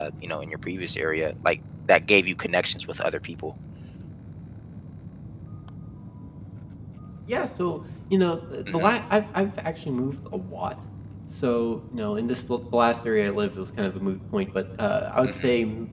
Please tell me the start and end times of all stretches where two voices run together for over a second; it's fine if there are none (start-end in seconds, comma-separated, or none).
none